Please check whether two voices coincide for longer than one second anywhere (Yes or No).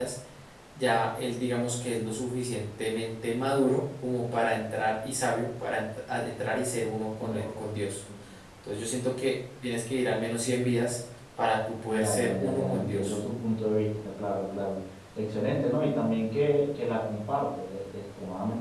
Yes